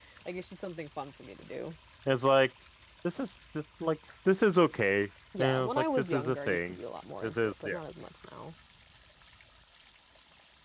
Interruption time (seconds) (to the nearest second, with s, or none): 5 s